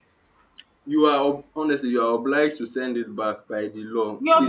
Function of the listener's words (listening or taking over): taking over